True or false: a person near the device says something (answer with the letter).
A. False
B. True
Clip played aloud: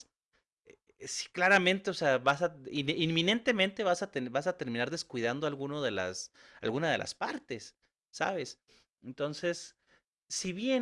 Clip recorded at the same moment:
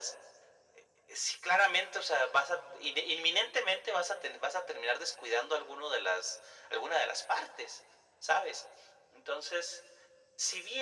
A